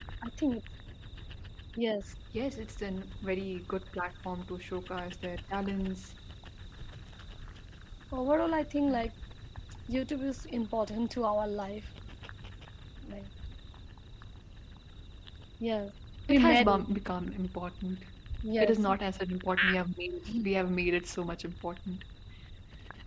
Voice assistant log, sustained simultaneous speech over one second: none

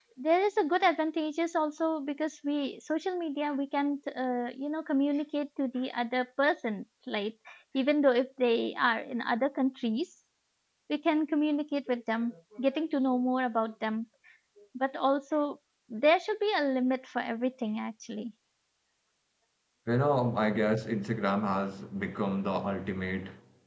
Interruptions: none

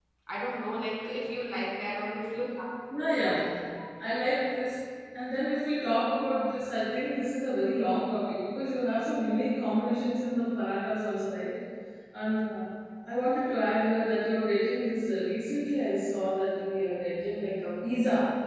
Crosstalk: none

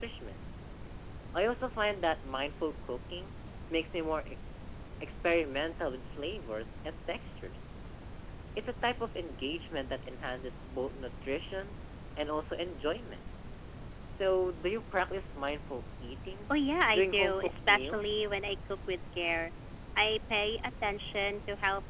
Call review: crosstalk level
present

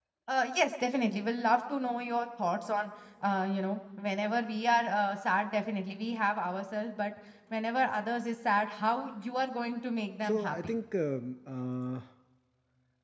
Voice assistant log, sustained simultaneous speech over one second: none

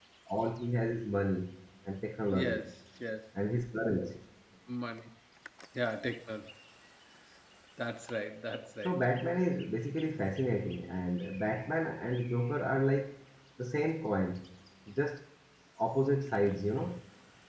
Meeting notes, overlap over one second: none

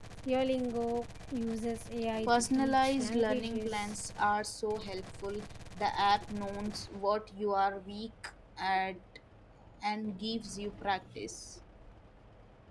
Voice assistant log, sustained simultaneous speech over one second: present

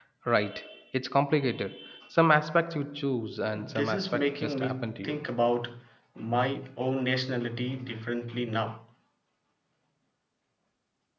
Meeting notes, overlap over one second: present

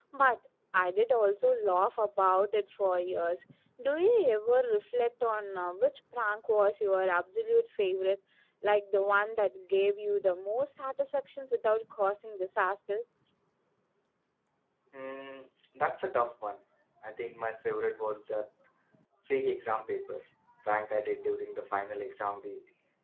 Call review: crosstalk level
none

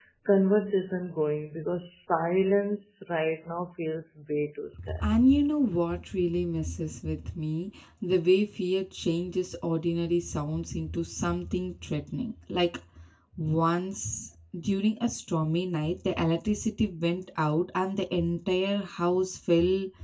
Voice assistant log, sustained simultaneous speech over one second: none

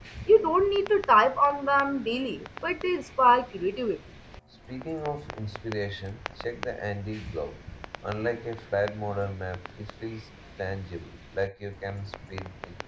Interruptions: none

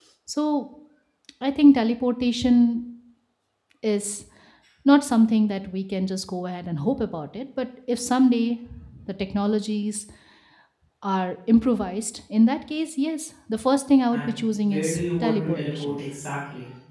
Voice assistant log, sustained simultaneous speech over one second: present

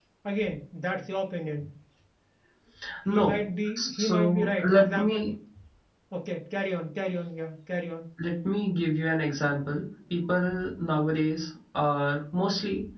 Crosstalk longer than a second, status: present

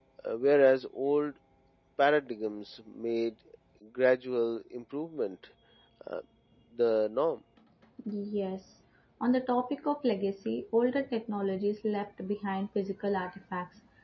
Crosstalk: none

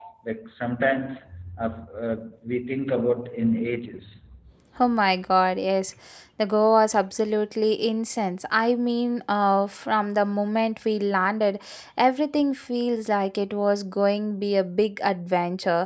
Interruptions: none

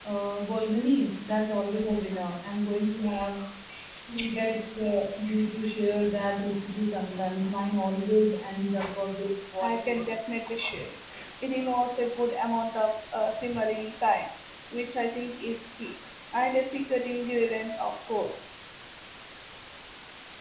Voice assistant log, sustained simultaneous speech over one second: none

